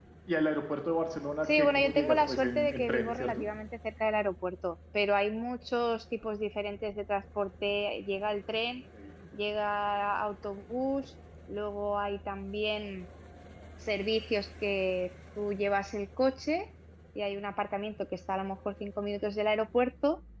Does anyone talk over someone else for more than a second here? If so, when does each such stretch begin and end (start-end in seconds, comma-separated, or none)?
1.6-3.5